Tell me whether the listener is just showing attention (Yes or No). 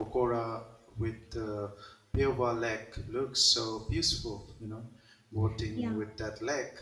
Yes